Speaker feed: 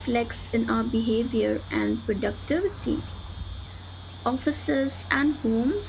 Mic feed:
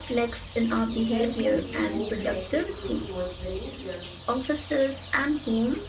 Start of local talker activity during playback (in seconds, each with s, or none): 0.9 s